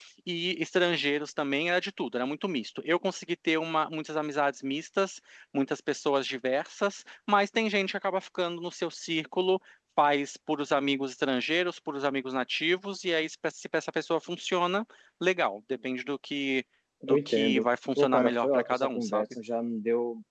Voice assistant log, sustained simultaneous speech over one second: present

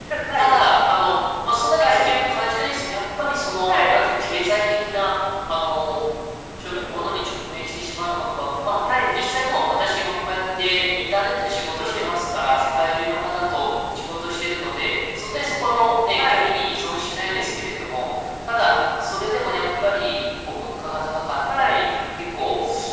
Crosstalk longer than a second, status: none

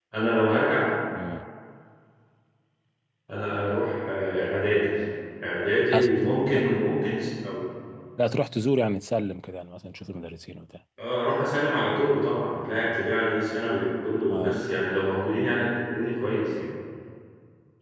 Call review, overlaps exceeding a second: none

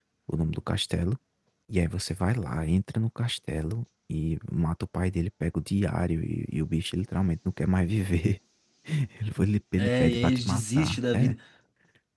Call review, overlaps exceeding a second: present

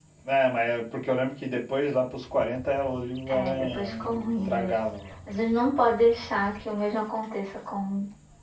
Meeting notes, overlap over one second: present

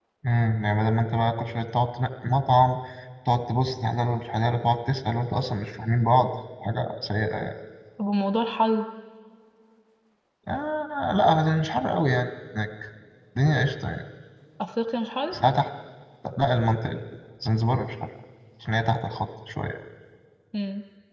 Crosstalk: none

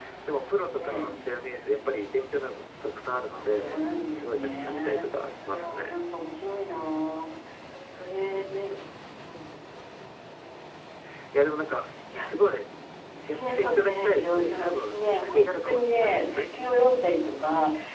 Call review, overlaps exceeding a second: present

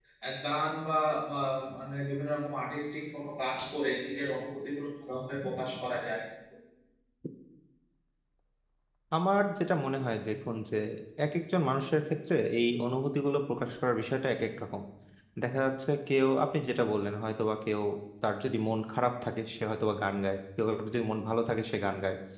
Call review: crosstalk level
none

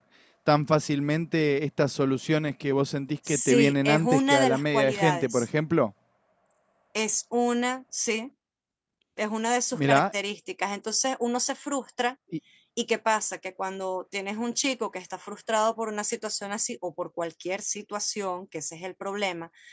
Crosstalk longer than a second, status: present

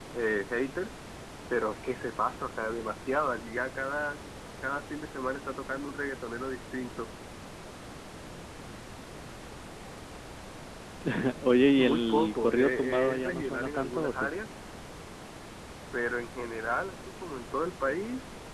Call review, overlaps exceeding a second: present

